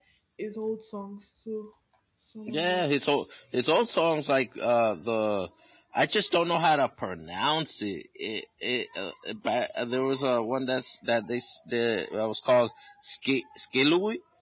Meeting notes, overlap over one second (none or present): none